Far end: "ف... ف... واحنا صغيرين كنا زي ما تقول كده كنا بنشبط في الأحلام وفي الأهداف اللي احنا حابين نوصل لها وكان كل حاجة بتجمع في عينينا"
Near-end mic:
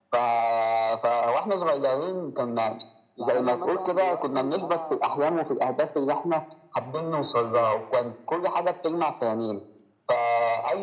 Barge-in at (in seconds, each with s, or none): 3.2 s